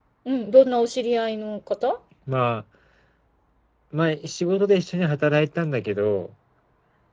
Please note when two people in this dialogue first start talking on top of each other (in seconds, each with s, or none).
none